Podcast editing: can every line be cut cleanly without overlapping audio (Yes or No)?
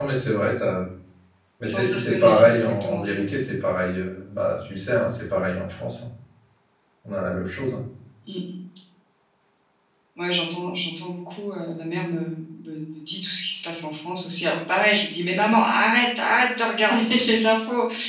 No